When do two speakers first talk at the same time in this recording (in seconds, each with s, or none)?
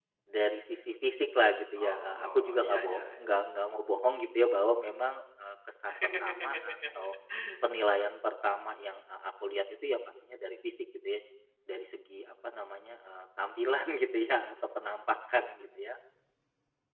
1.8 s